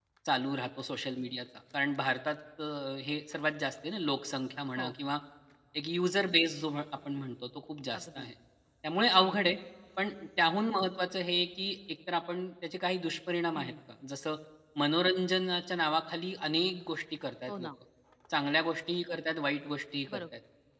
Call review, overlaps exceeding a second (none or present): none